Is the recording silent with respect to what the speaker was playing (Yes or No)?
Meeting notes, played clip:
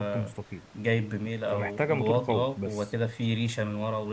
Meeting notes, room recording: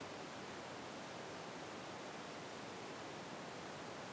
Yes